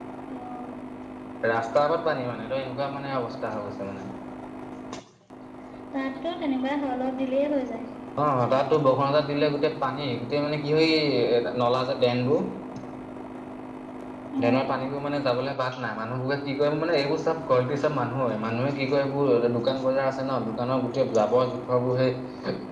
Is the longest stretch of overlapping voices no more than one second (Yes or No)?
Yes